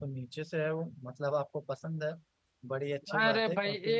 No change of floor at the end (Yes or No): No